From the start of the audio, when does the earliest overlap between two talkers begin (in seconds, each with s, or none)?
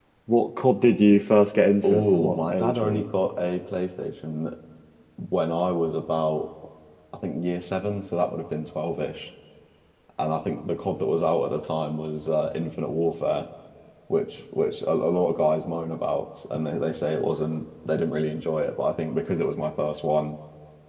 1.8 s